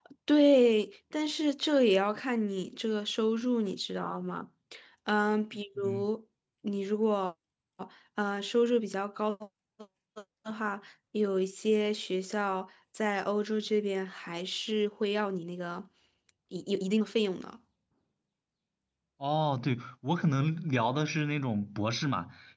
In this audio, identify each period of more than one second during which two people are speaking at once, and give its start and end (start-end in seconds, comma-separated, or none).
none